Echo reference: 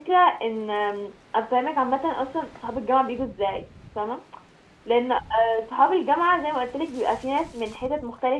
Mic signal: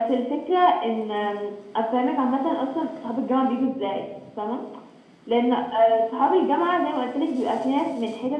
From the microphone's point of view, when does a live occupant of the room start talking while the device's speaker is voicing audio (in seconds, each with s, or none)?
none